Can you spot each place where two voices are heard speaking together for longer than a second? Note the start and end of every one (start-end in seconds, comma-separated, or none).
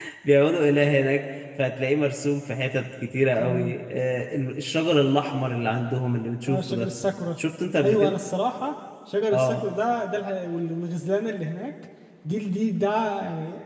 none